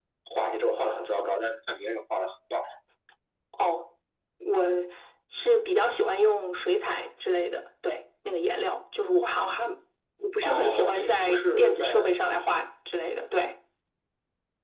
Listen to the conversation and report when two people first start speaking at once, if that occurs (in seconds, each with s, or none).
10.4 s